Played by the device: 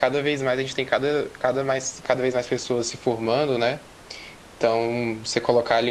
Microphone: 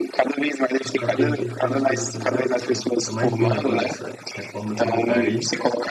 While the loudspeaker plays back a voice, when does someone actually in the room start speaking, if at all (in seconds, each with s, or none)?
0.8 s